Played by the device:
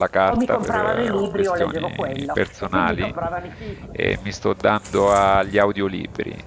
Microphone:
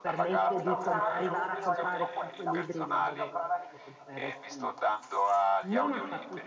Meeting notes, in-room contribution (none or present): present